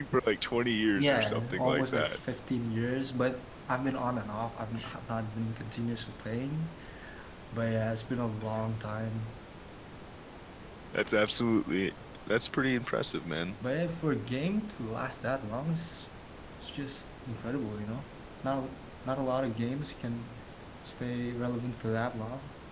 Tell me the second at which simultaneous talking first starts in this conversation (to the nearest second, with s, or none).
1 s